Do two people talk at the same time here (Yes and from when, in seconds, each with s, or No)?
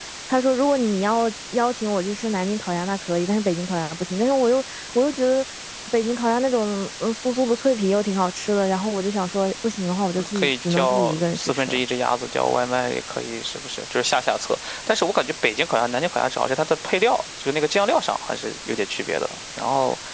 Yes, from 10.2 s